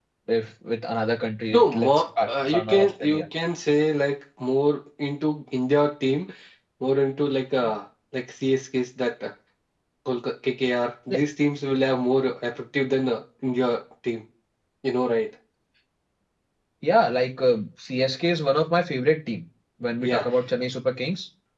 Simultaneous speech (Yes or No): Yes